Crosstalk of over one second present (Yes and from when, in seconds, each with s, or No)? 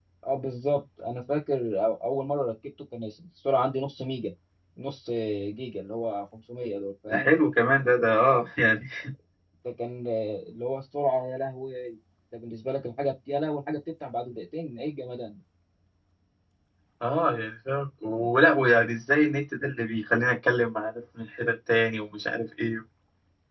No